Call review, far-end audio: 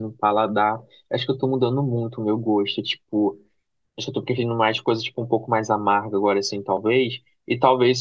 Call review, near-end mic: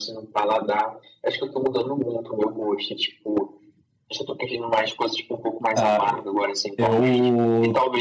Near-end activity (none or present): present